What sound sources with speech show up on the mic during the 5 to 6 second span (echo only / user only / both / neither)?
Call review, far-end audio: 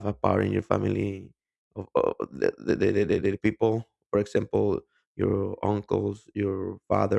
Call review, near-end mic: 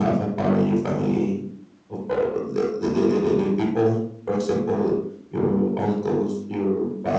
echo only